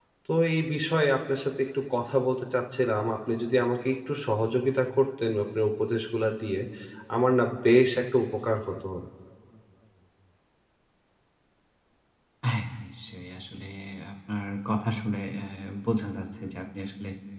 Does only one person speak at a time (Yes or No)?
Yes